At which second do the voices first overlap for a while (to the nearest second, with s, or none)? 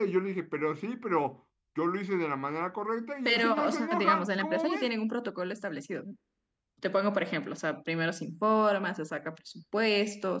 3 s